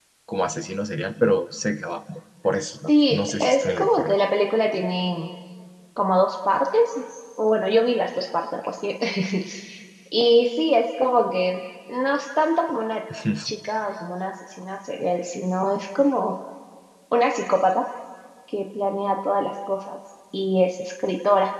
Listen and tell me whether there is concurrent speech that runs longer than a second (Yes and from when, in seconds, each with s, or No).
Yes, from 2.9 s